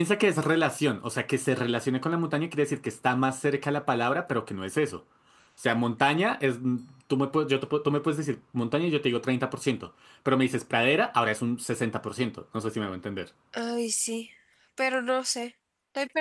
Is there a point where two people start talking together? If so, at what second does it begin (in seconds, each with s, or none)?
none